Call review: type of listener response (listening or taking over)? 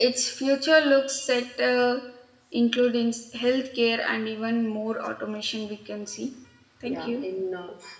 taking over